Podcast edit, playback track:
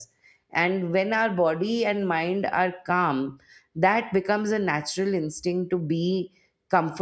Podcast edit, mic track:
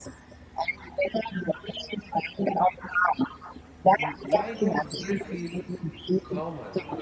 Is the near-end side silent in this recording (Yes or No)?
No